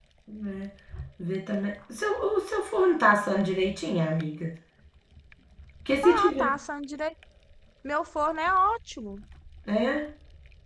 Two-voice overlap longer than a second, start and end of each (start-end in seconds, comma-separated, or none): none